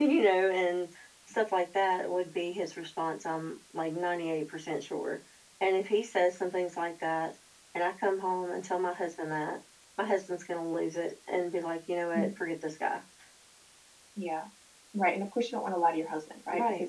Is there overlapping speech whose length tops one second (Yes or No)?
No